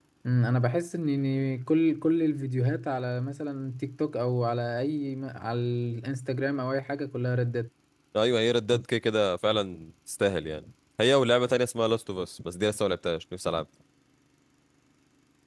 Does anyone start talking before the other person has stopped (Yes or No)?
No